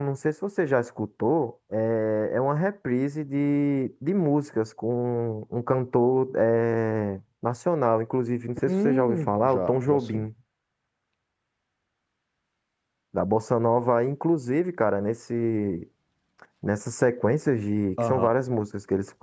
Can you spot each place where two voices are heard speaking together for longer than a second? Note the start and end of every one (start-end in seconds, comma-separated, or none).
8.7-10.3